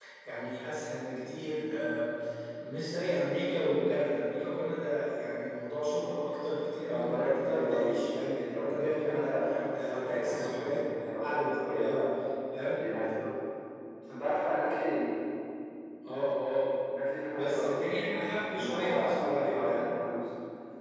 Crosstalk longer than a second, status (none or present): present